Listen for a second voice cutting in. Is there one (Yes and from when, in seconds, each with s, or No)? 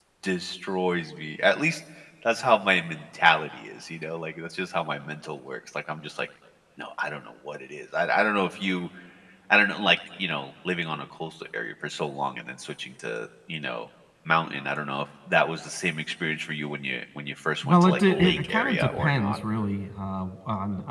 Yes, from 17.6 s